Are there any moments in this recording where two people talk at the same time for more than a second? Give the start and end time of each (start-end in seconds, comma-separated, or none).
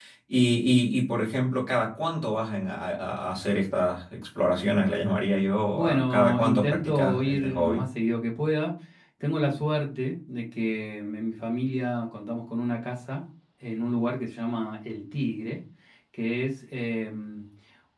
5.7-7.8